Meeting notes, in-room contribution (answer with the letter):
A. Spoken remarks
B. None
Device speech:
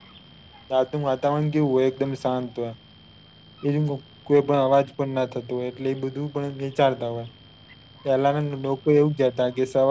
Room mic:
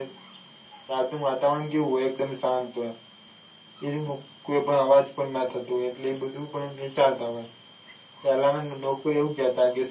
B